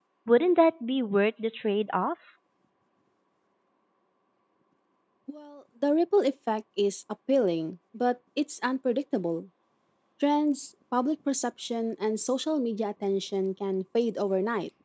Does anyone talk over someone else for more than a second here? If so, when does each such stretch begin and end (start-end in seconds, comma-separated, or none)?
none